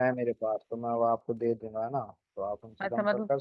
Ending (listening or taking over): taking over